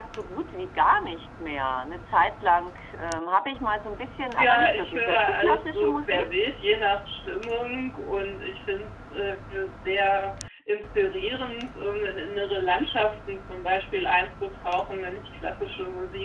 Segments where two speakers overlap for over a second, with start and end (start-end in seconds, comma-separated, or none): 4.4-6.2